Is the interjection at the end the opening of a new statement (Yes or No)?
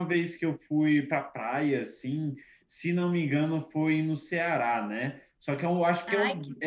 No